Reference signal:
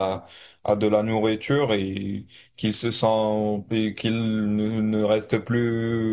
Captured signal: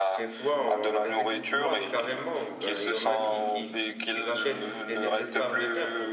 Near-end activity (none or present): present